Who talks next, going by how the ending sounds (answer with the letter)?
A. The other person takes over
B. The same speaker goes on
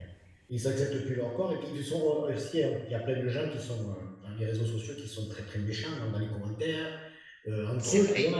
B